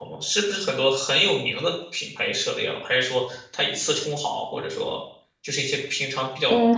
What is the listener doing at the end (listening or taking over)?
taking over